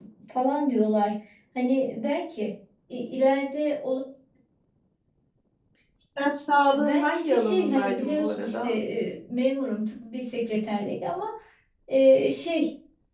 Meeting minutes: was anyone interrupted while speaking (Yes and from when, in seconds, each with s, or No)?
Yes, from 6.7 s